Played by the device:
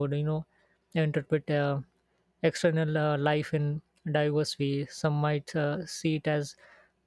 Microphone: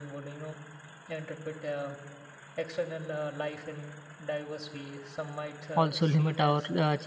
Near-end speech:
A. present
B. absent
A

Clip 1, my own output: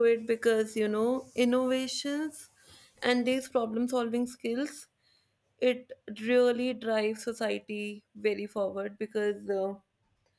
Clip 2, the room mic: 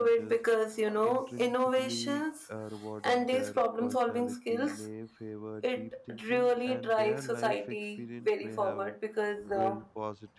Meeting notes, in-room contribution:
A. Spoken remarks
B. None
A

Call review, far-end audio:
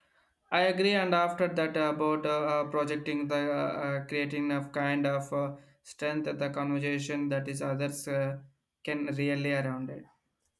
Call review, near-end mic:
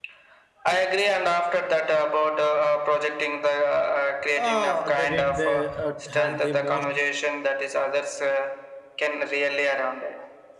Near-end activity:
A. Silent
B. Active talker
B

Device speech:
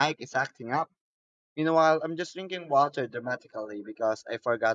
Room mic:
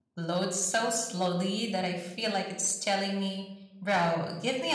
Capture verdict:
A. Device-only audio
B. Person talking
B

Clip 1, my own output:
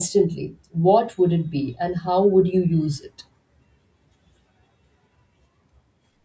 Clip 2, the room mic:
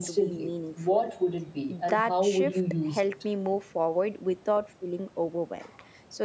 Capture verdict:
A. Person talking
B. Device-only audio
A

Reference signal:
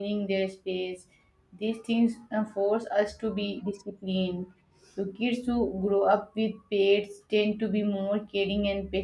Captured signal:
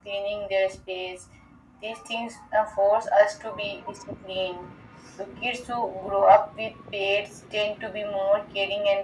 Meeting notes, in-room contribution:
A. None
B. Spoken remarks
A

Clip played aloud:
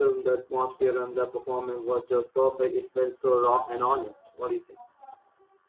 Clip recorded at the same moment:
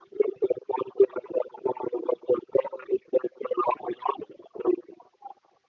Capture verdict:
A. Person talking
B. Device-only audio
B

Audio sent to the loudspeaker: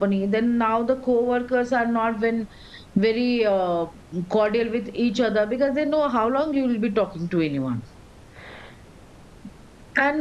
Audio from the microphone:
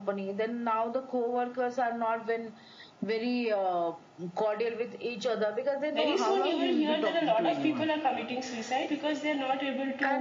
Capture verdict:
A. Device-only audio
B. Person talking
B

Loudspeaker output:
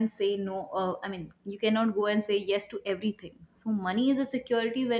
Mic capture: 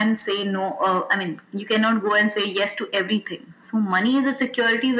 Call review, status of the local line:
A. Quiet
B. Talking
A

